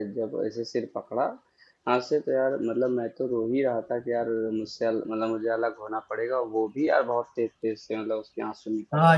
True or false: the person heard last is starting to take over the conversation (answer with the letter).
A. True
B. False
A